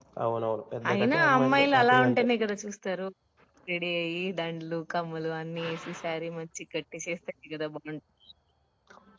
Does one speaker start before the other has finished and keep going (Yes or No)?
Yes